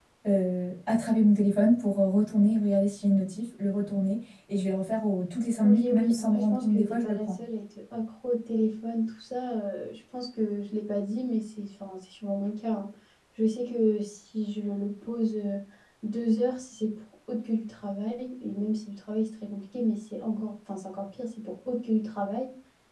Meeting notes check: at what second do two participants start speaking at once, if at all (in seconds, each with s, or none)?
5.6 s